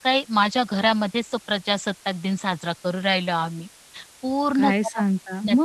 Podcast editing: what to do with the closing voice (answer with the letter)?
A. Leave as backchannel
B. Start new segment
B